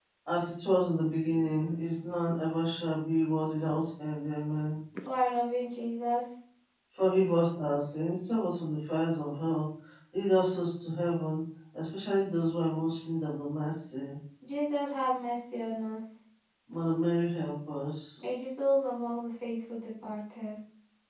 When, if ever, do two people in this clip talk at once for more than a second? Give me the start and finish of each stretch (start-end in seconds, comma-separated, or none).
none